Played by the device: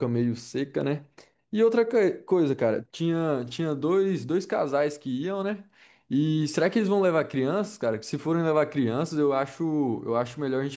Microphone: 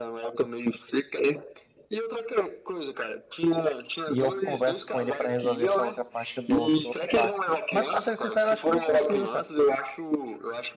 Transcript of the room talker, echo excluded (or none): e eu converso com ele para resolver essa outra parte do, do outro barco. Mas para ser sincero, acho que nem precisa, cara.